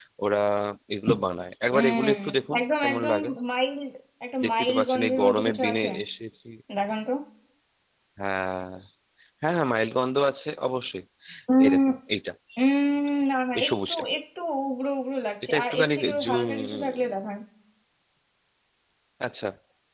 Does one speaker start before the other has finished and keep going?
Yes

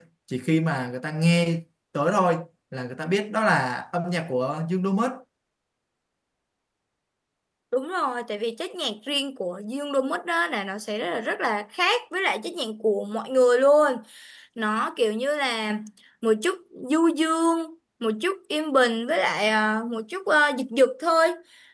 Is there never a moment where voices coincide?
Yes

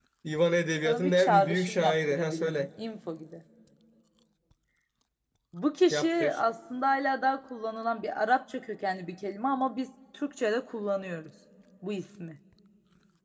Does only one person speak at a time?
No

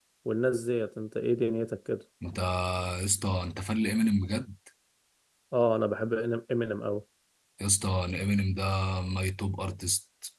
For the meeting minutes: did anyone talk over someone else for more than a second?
No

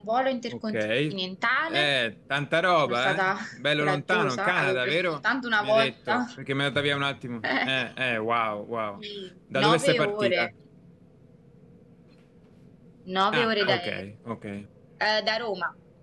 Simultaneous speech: Yes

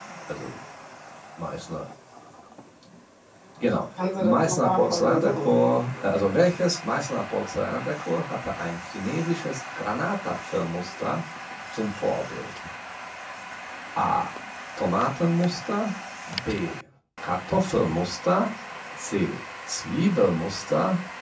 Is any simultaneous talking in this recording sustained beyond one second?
Yes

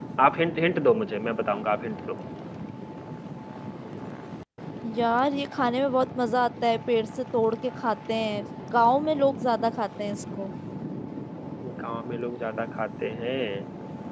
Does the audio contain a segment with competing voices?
No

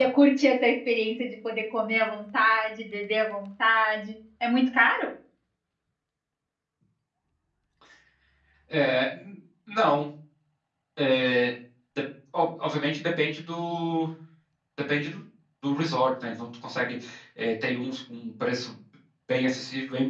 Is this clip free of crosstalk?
Yes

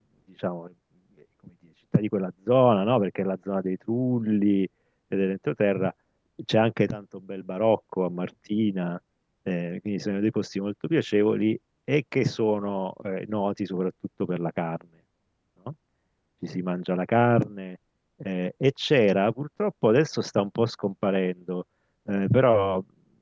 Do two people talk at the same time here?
No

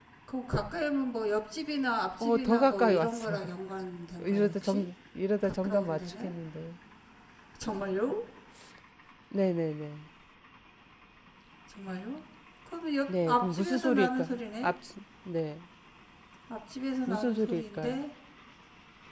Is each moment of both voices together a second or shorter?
No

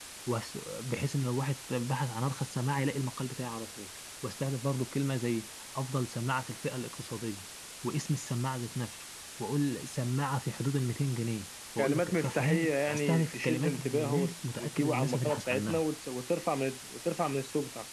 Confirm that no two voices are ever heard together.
No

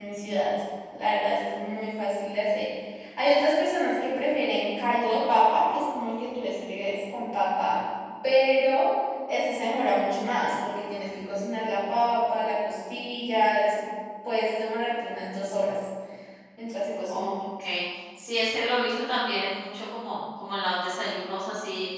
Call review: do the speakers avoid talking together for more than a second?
Yes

